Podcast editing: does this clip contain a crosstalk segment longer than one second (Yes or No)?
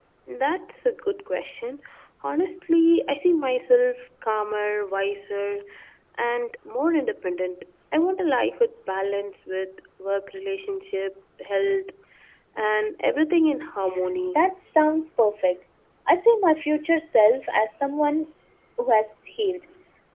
No